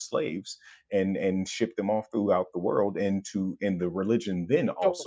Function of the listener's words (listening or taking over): listening